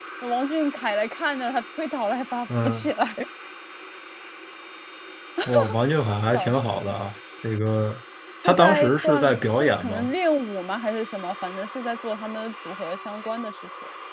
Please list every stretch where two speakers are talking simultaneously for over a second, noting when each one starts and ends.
8.4-10.1

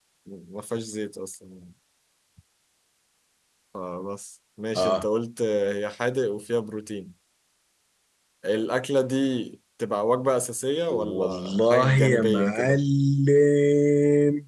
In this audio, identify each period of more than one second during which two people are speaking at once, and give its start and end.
10.9-12.8

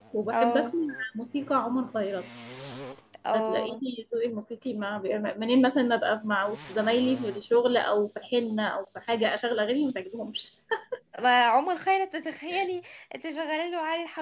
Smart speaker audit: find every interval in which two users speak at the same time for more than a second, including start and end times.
none

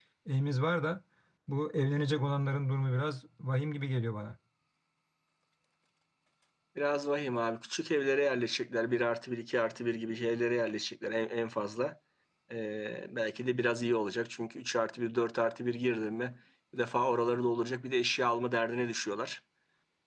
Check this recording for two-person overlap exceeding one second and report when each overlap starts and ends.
none

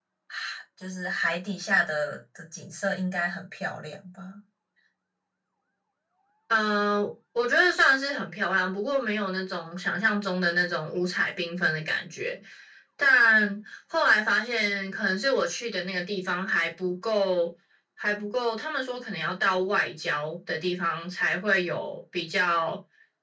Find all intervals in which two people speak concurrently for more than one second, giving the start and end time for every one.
none

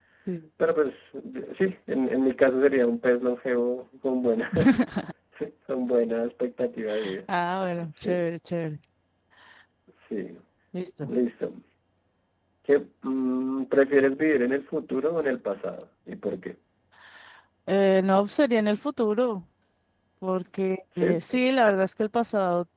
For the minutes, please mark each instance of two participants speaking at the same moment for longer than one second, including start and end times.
none

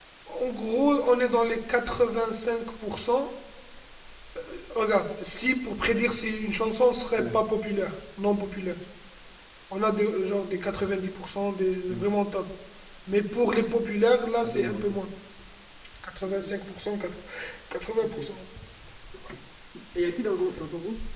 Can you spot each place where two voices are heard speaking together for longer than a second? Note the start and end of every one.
none

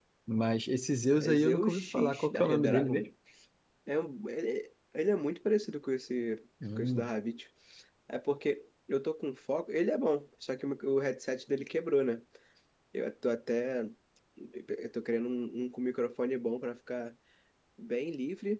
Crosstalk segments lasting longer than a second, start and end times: 1.1-3.0

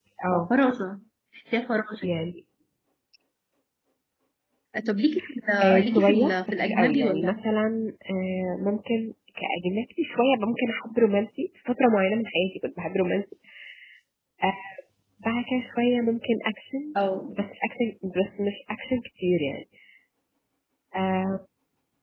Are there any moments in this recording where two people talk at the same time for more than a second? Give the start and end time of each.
5.6-7.4

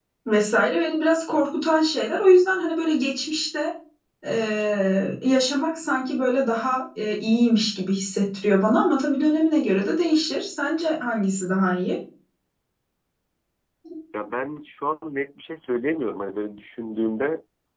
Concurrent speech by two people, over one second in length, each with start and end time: none

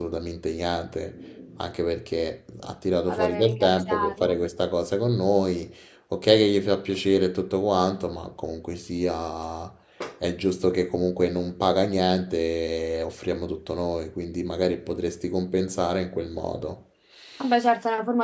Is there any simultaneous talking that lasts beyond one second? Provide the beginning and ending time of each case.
3.1-4.4

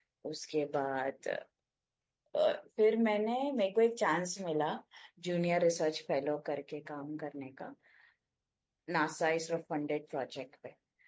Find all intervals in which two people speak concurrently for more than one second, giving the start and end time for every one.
none

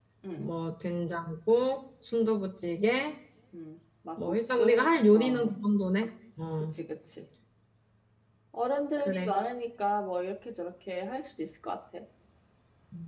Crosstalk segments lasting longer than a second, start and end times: 4.2-5.5

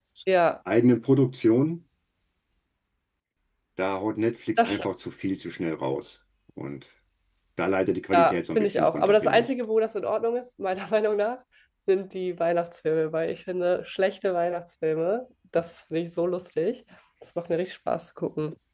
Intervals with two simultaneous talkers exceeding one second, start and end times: 8.1-9.5

